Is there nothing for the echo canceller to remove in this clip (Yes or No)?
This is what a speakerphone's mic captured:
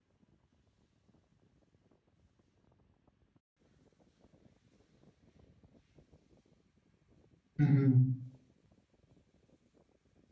Yes